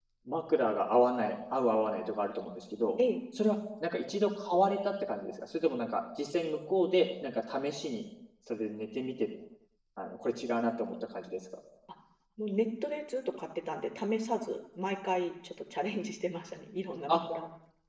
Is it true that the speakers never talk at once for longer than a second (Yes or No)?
Yes